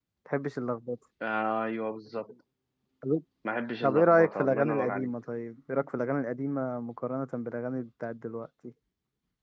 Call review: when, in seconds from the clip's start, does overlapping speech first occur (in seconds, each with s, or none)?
3.8 s